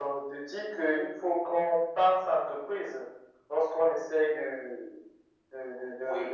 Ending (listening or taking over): listening